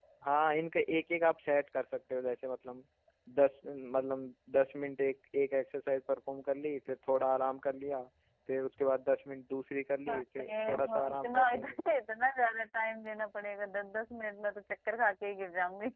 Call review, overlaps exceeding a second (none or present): present